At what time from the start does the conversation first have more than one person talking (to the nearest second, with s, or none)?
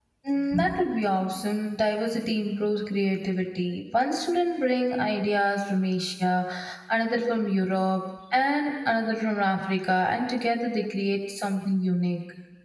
none